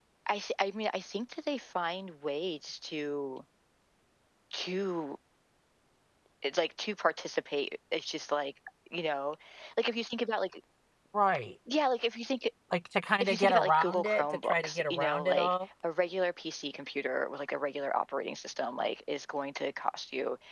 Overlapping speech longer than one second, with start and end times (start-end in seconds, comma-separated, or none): 13.2-15.5